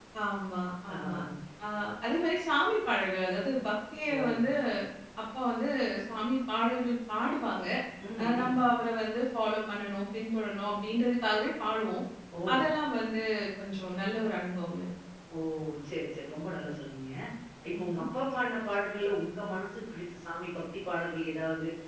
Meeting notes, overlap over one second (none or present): none